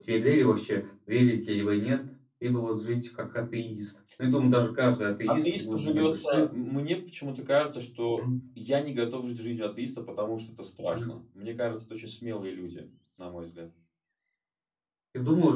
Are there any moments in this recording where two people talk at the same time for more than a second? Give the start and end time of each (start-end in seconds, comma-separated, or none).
5.3-6.5